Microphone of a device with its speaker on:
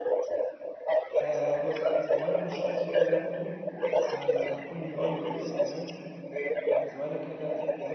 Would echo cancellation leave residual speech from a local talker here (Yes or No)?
Yes